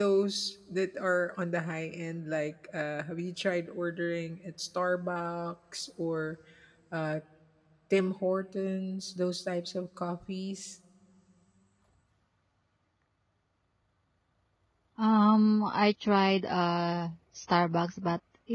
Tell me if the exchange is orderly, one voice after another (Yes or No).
Yes